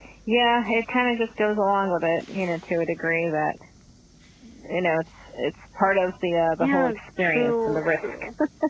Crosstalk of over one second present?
Yes, from 6.6 s

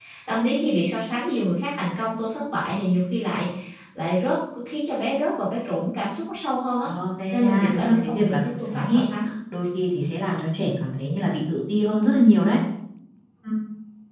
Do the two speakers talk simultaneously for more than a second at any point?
Yes, from 7.3 s

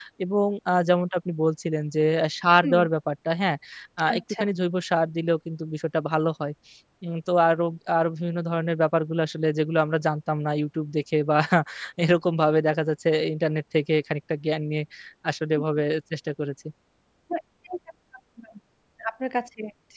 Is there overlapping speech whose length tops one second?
No

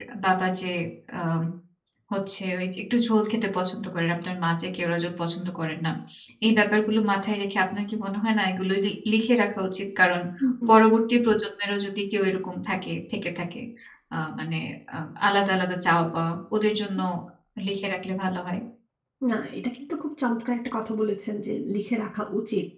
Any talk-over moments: No

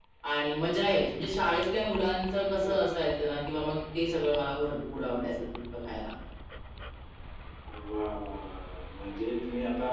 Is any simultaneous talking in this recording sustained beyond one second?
No

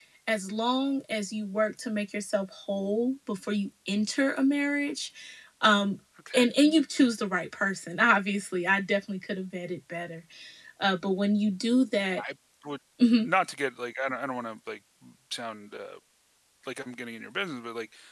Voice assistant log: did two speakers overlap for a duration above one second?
No

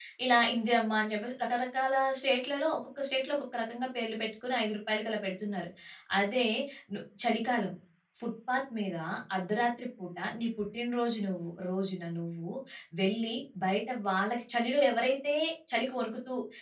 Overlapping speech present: No

